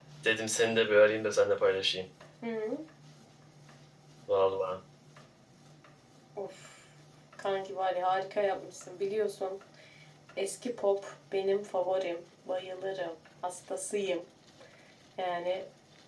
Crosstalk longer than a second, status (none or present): none